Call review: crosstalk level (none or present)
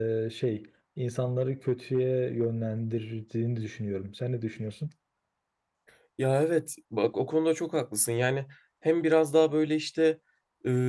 none